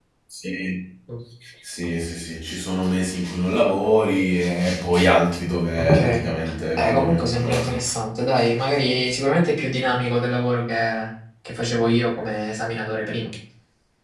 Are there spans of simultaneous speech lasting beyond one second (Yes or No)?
Yes